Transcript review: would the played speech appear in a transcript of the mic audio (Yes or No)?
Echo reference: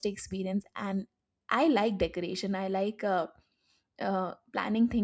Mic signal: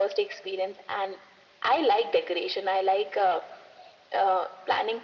Yes